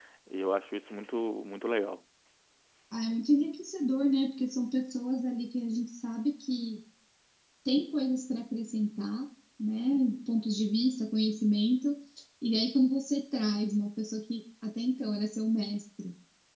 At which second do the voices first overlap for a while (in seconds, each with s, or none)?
none